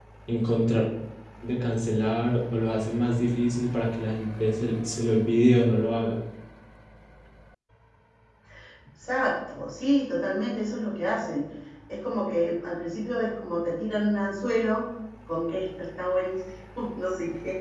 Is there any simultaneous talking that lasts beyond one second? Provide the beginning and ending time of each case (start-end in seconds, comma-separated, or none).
none